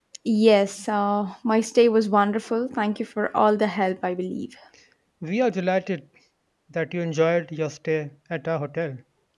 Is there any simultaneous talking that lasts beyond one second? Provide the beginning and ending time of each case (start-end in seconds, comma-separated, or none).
none